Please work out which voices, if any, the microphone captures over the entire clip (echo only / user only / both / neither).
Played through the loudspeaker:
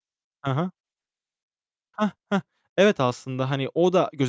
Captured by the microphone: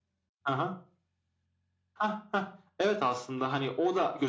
echo only